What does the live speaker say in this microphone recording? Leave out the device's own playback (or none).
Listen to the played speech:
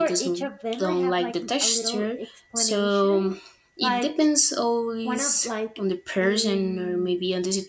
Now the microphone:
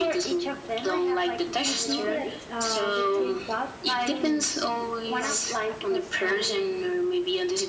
should be that uh, the taste buds change du- like across time.